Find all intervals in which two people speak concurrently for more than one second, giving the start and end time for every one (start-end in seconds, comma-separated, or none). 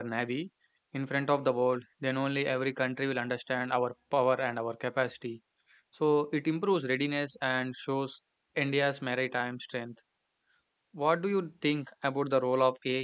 none